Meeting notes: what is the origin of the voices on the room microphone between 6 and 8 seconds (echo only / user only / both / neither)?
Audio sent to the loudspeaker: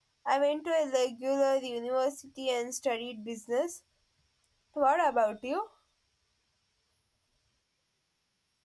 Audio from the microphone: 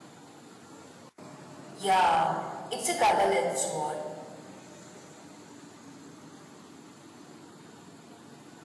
neither